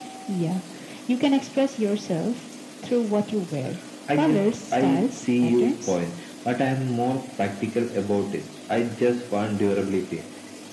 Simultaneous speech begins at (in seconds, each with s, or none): 4.1 s